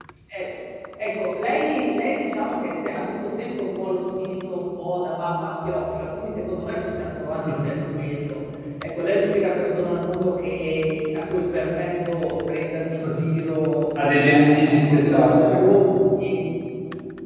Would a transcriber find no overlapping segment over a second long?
No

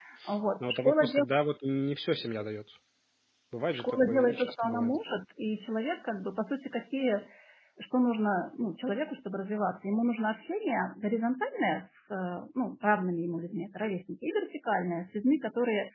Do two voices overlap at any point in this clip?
Yes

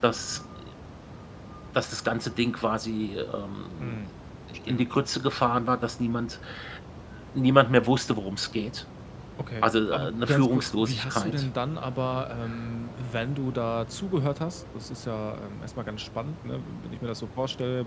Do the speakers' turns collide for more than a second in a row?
Yes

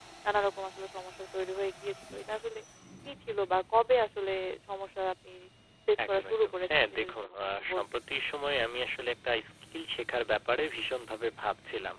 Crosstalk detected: Yes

